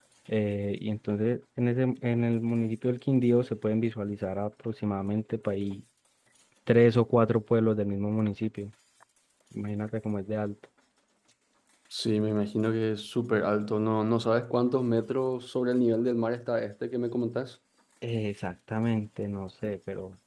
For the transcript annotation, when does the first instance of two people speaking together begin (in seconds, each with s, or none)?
none